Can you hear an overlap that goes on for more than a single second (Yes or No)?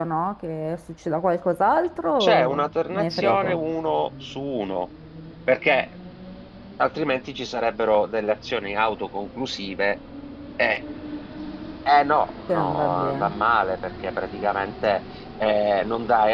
Yes